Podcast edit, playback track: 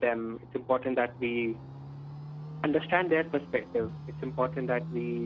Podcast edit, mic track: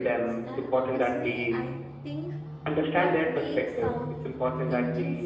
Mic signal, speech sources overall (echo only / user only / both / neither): both